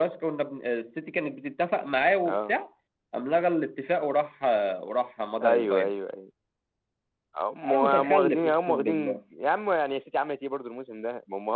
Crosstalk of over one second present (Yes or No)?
Yes